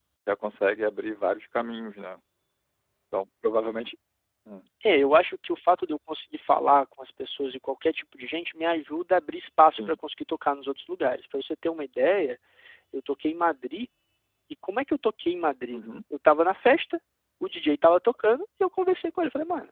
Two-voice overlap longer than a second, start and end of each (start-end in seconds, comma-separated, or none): none